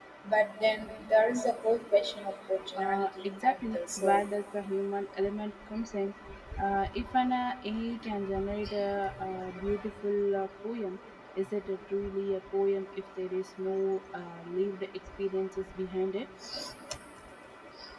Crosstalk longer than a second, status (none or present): present